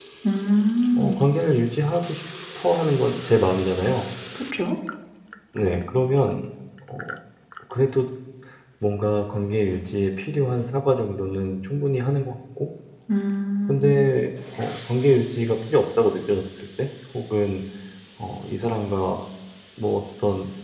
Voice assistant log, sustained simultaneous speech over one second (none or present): none